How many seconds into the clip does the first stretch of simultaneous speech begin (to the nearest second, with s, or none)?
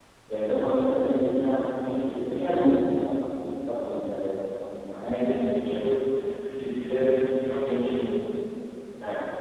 none